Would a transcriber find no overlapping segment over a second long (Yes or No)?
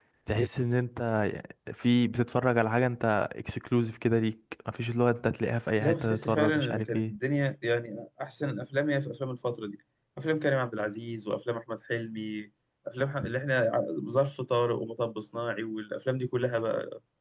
No